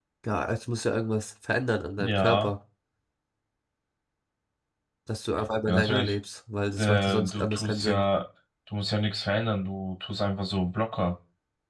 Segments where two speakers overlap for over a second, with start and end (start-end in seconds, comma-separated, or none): 6.8-8.0